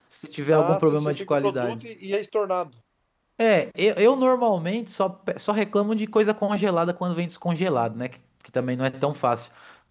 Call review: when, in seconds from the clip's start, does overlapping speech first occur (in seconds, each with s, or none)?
0.5 s